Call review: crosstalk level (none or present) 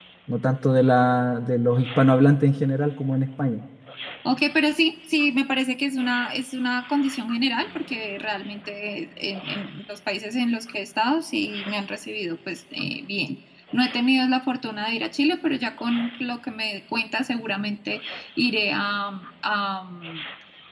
none